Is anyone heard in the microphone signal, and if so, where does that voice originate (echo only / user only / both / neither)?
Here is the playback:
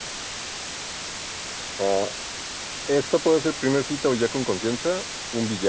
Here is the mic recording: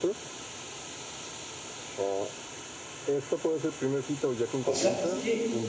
both